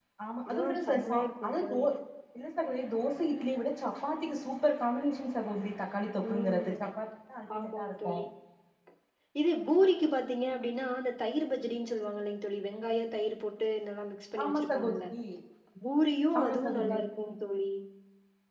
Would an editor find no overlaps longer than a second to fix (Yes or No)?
No